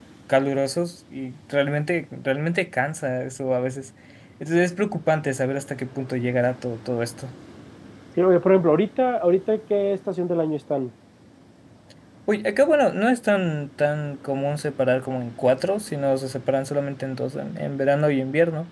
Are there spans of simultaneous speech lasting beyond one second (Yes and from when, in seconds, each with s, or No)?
No